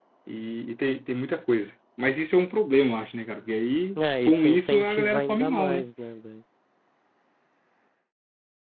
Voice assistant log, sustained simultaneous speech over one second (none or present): present